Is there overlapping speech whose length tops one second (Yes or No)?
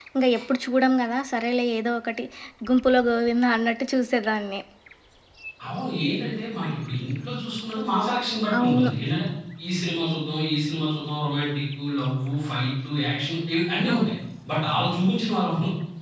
No